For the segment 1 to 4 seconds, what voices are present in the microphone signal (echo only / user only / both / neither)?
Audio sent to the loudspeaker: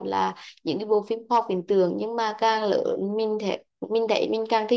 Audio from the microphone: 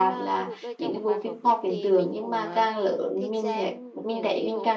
both